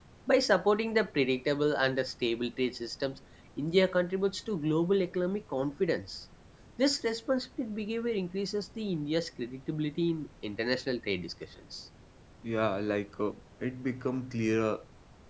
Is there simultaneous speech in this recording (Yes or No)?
No